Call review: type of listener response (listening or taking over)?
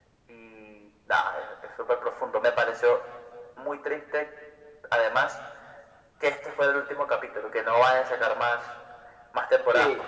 taking over